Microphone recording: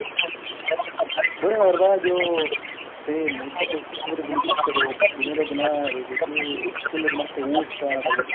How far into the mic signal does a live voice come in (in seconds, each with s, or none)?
1.4 s